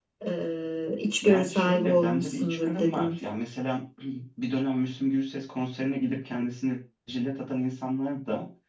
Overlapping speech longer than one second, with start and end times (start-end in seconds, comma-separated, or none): 1.2-3.1